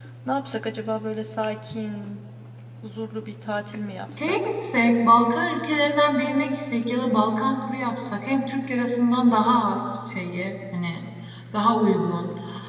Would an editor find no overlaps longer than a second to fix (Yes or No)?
Yes